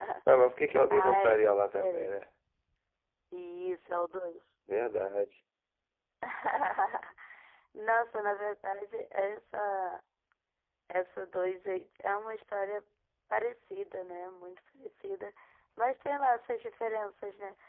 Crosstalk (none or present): present